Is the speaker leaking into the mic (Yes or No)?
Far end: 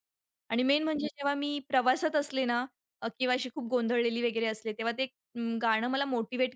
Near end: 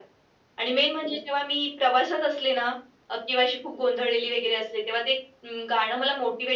Yes